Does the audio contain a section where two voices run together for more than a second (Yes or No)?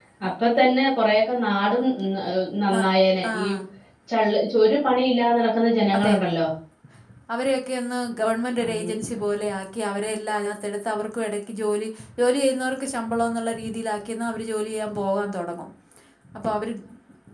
No